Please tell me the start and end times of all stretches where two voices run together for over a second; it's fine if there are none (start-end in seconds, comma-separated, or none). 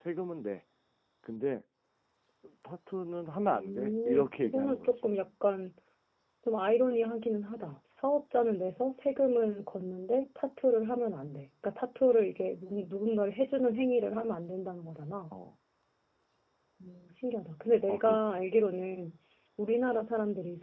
3.4-4.9